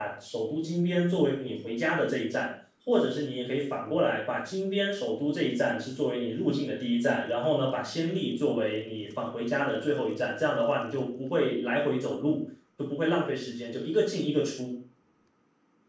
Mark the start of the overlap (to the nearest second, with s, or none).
none